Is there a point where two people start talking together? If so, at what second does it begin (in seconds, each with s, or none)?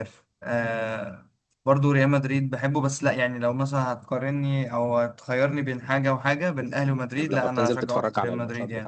7.2 s